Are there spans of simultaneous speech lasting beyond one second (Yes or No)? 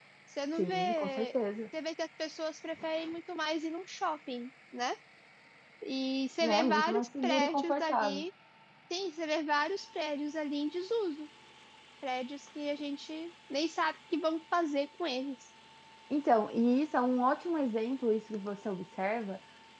Yes